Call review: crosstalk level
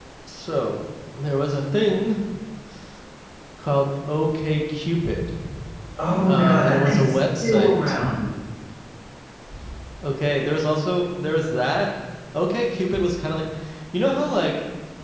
present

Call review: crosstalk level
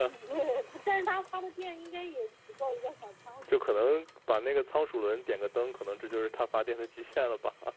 none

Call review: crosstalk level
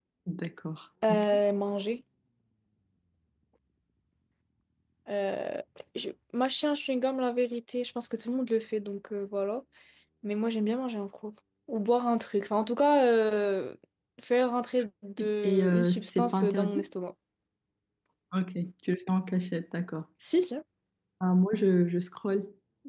present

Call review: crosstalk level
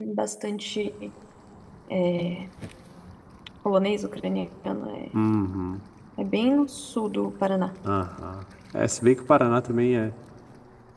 none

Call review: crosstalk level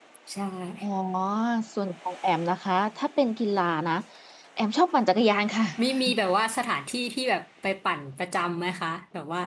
none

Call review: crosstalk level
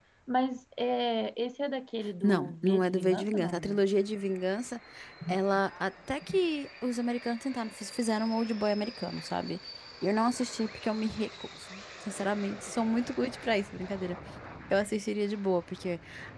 present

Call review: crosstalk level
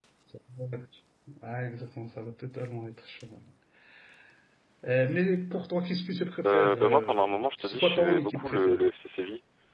present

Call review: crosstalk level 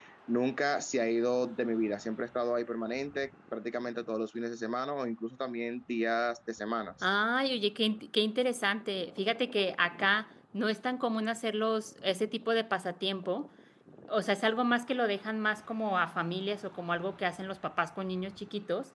none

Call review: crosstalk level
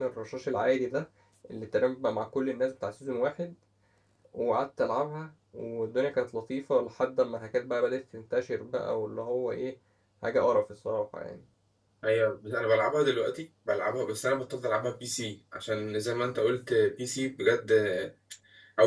none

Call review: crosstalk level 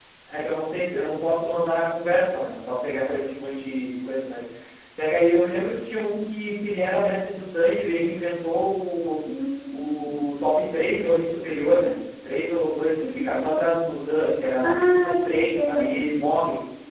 present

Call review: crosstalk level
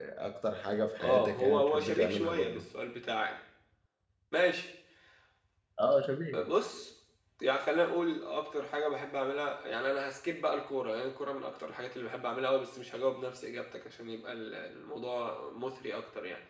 present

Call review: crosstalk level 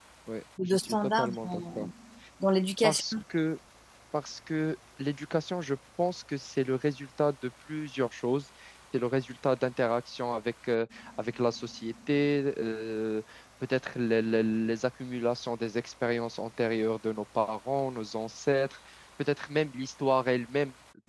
present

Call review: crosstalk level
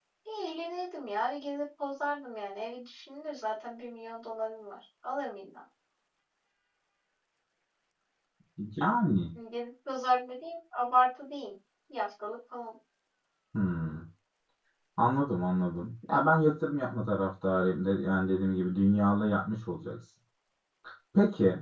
none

